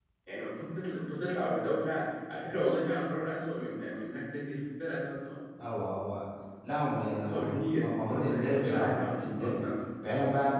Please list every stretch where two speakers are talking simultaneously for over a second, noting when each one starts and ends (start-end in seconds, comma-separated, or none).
7.2-9.5